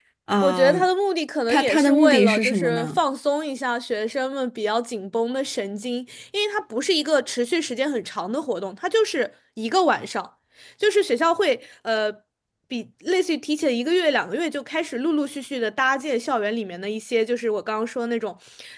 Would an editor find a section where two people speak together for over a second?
Yes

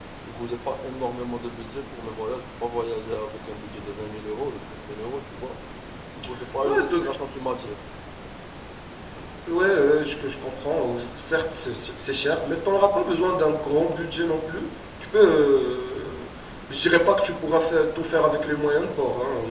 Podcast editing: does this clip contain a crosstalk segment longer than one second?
No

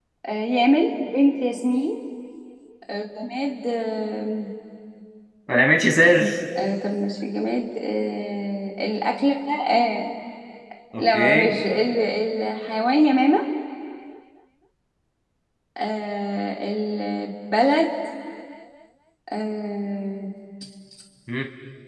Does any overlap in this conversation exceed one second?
No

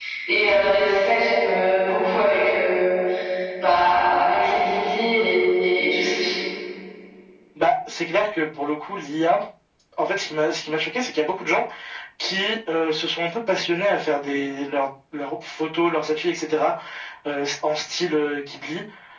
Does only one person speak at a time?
Yes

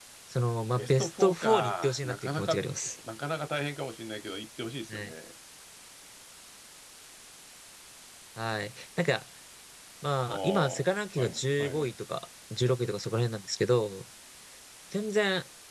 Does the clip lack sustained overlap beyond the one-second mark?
No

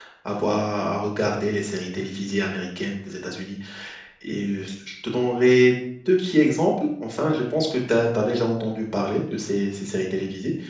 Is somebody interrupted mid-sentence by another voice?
No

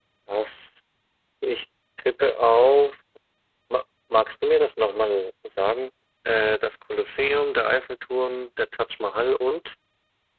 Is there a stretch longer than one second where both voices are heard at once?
No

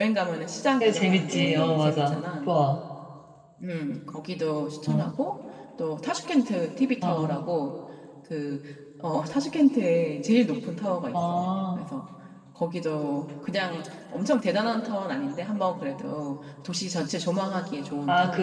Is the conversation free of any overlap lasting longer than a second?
No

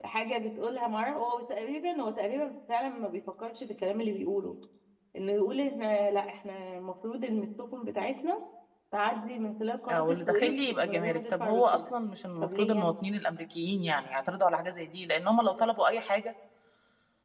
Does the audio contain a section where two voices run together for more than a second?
Yes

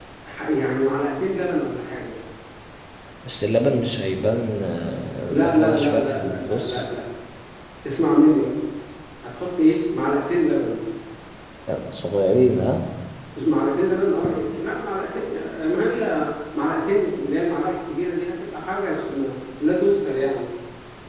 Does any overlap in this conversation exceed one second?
Yes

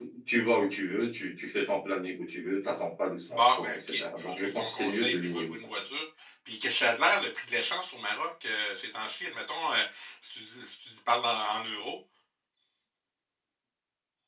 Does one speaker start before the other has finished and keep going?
Yes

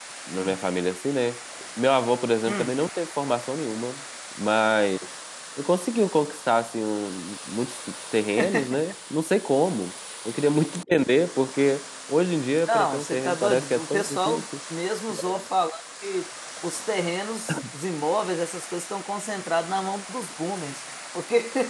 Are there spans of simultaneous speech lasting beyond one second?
Yes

